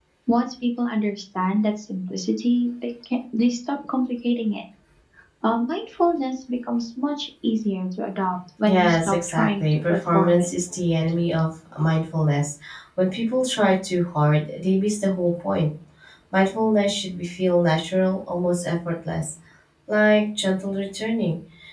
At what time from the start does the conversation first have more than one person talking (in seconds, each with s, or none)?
8.6 s